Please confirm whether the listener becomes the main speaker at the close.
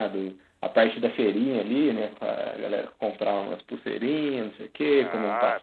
Yes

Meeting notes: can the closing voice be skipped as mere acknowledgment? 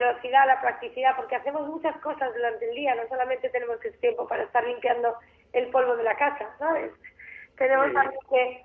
Yes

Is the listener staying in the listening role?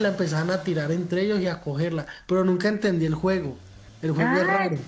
No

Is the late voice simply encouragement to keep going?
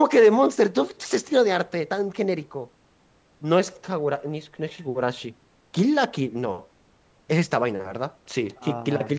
Yes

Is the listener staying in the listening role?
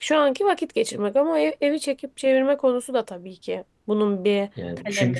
No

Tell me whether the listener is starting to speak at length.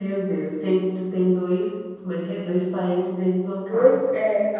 Yes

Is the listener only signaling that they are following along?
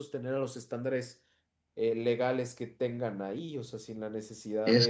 No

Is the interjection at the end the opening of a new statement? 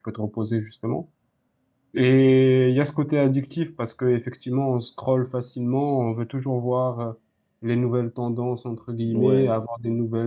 No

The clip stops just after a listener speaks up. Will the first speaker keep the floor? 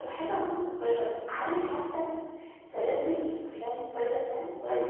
No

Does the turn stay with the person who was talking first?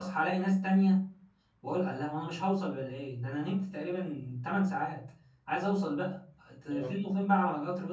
Yes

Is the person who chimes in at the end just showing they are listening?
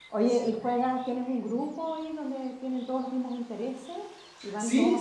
No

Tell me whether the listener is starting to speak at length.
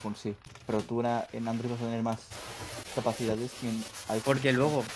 Yes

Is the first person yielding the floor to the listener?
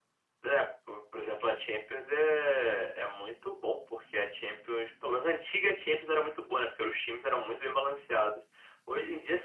No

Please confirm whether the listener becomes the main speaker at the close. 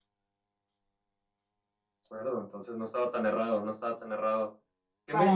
No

